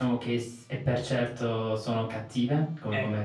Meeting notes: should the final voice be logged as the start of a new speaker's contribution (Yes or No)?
Yes